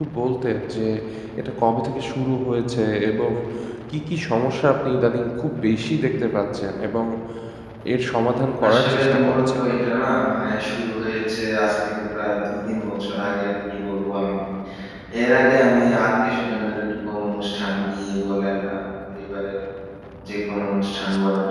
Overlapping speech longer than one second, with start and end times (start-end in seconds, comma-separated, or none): 8.7-9.9